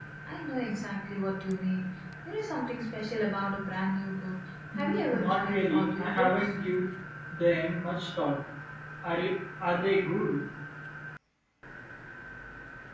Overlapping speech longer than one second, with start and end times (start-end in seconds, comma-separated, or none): 4.8-6.4